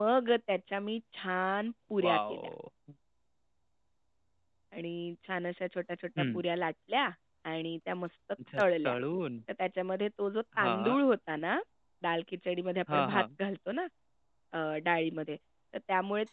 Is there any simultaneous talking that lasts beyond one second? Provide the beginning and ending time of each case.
none

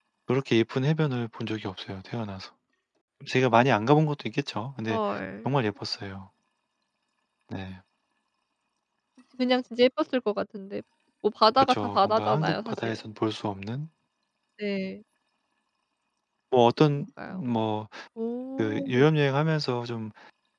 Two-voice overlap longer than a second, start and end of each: 11.6-13.0

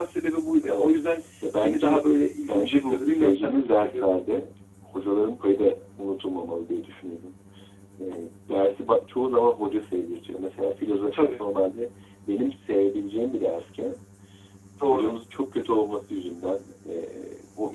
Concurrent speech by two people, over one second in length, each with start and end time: 2.5-4.1

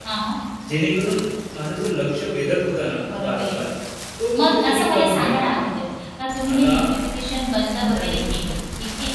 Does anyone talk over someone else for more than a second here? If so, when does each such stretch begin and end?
4.4-5.7

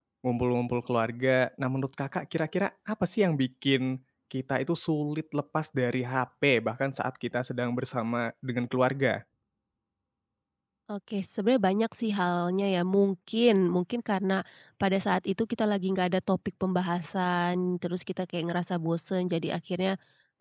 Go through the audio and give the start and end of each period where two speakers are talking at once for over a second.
none

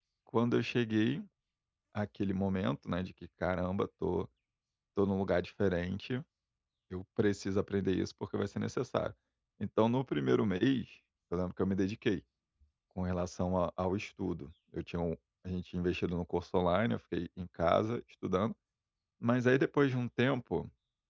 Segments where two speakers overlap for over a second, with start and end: none

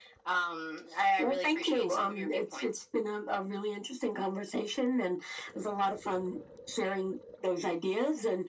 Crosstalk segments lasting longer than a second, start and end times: 1.2-2.7

